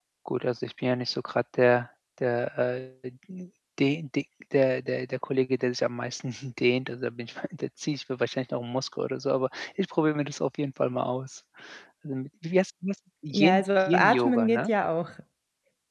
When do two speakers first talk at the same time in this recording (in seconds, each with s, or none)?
13.3 s